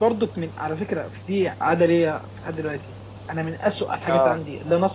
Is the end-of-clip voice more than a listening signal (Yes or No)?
No